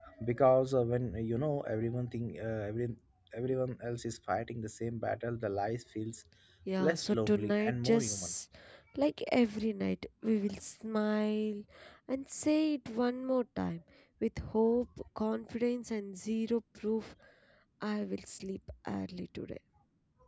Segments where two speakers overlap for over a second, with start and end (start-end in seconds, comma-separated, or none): 6.8-8.3